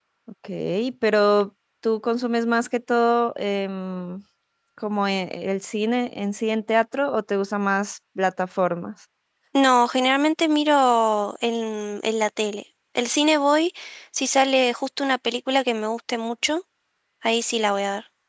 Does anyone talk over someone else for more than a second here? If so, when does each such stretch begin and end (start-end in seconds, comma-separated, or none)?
none